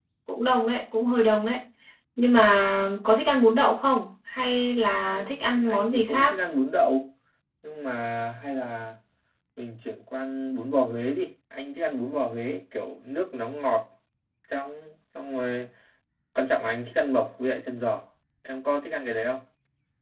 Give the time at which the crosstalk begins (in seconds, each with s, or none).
5.1 s